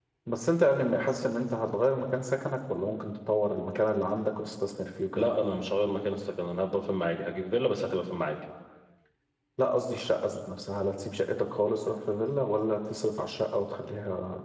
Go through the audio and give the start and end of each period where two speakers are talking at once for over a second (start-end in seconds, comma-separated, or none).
none